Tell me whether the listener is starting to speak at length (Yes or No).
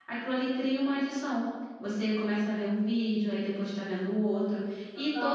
No